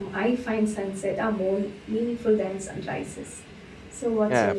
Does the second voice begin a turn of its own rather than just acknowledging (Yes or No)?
Yes